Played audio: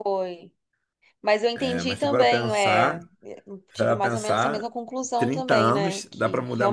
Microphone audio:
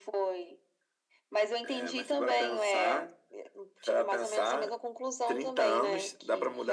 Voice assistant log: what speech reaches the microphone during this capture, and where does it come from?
echo only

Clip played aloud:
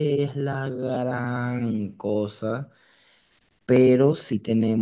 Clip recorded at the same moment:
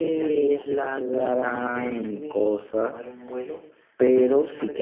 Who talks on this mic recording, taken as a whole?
both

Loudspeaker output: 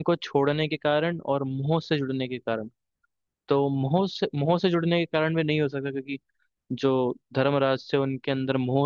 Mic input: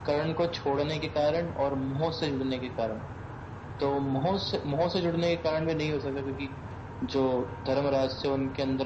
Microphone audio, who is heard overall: echo only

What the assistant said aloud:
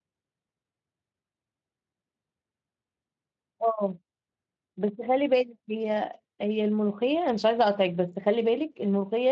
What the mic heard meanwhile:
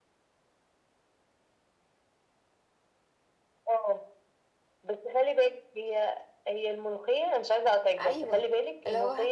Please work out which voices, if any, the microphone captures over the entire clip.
both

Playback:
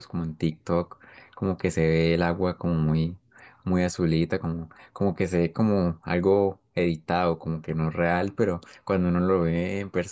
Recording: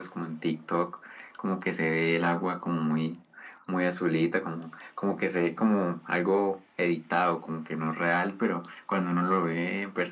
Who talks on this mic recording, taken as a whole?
echo only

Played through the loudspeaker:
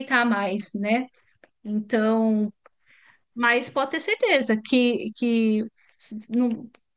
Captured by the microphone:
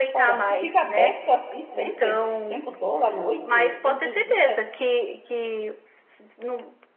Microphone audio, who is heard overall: both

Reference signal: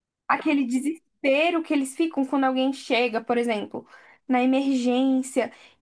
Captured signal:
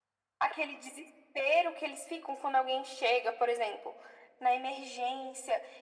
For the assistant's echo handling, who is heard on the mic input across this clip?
echo only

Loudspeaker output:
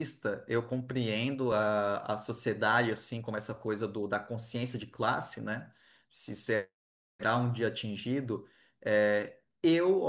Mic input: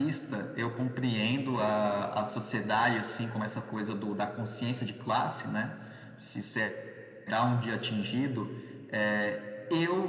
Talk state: echo only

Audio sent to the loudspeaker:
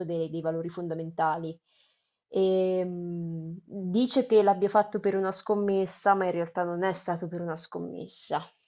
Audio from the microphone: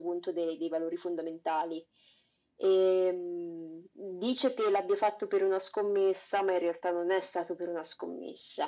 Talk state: echo only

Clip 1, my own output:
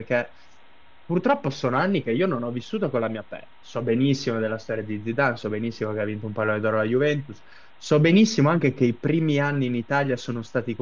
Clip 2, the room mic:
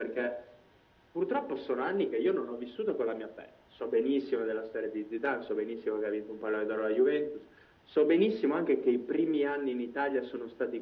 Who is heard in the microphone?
echo only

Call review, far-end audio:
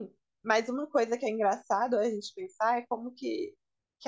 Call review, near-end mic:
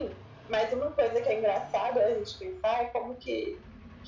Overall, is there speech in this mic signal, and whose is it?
echo only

